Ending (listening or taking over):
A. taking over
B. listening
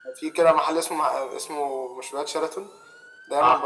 B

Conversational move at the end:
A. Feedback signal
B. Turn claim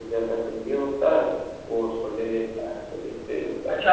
B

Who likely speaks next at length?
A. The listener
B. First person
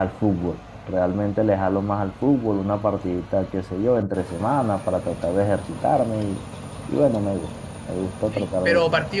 A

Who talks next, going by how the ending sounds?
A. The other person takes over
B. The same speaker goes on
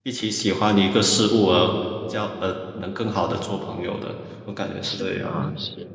A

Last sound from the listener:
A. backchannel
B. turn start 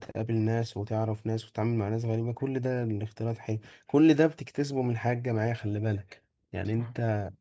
A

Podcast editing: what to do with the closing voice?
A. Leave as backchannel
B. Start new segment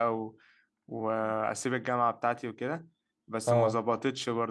A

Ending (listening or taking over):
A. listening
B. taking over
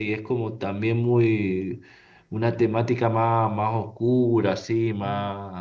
A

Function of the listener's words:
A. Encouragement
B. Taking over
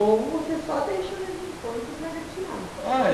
B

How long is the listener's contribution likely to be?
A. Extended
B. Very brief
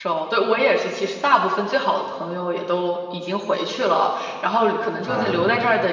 B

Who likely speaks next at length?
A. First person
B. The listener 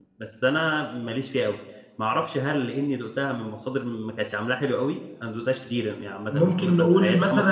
B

